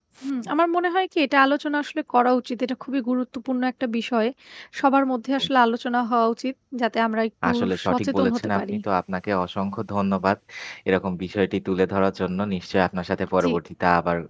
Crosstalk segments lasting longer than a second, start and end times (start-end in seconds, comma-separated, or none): 7.5-8.7